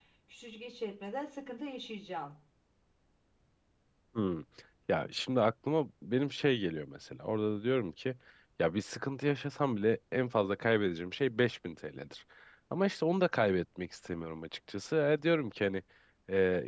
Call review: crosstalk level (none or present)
none